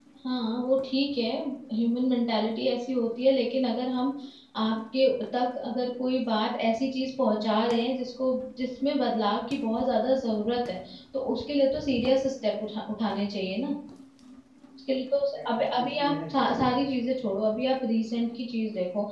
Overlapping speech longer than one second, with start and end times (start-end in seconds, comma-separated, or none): 15.4-16.6